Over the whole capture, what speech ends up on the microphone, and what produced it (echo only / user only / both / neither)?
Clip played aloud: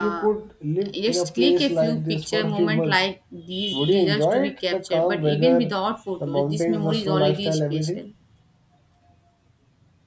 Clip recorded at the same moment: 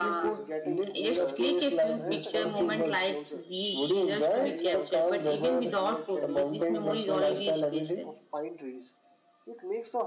both